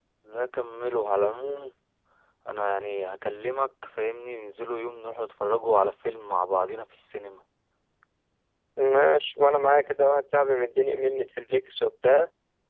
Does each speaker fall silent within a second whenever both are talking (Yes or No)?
Yes